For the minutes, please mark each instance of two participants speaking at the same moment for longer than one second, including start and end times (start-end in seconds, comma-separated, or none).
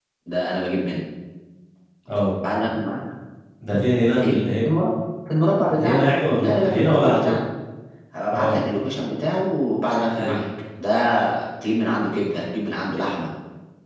5.8-7.3